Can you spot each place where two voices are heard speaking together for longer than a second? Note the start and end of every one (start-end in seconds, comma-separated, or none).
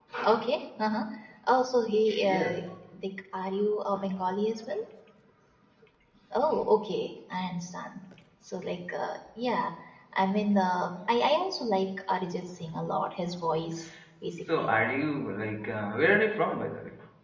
none